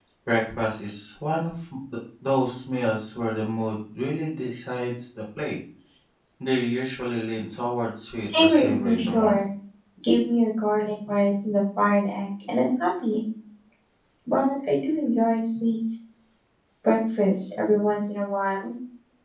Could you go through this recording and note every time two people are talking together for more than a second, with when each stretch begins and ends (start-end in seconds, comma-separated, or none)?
8.2-9.4